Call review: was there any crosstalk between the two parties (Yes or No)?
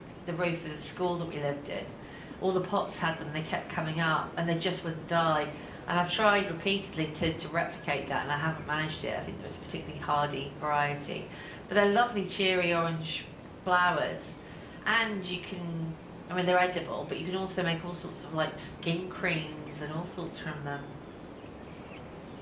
No